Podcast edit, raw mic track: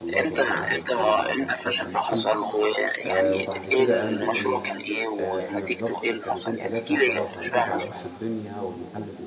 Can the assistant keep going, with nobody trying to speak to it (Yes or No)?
No